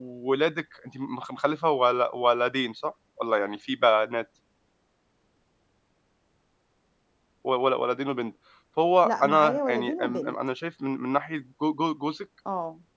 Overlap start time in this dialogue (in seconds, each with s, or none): 9.0 s